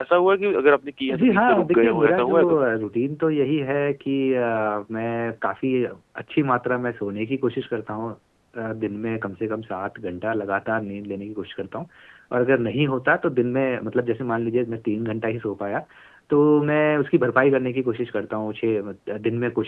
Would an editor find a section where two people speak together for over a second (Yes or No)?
Yes